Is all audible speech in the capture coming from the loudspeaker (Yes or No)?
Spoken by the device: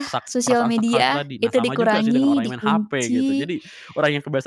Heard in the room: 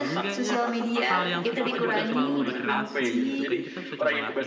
No